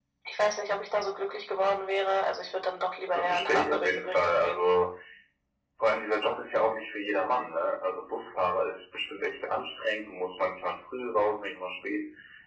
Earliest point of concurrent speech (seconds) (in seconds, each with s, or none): 3.1 s